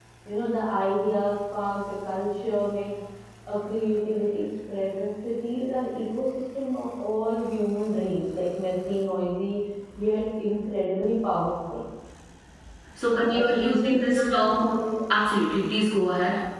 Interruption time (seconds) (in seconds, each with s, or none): 13.3 s